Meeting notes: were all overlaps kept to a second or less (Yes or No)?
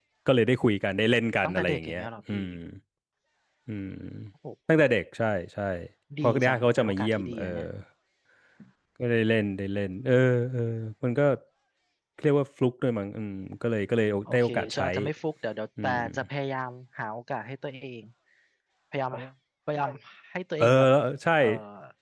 No